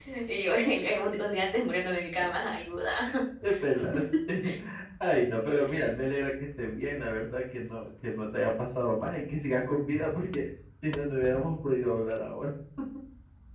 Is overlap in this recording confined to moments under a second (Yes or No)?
Yes